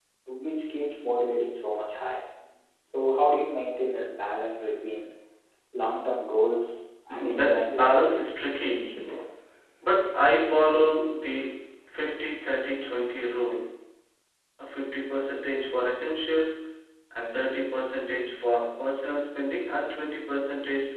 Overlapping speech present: Yes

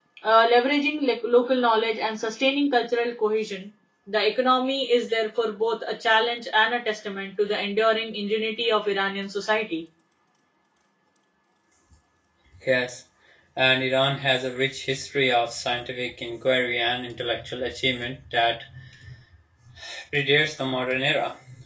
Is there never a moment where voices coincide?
Yes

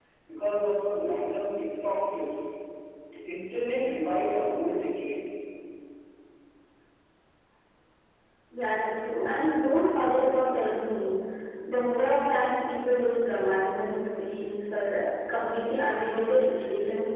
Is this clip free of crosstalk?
Yes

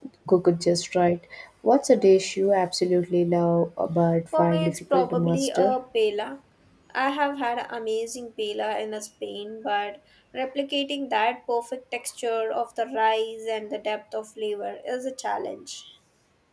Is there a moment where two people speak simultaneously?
Yes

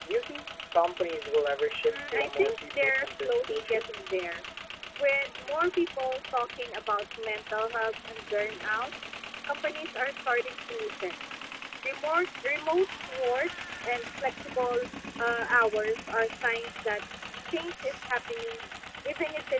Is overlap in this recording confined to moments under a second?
No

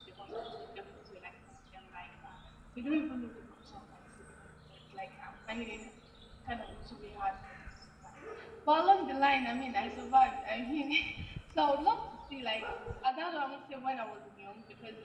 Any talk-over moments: No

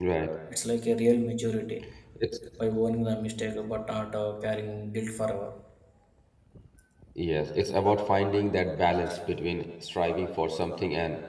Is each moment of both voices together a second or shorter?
Yes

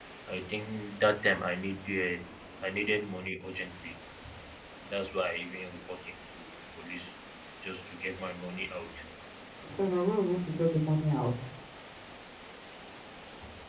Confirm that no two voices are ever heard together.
Yes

